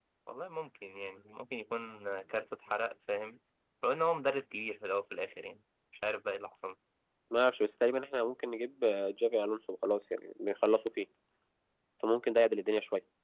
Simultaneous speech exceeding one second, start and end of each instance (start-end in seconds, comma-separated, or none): none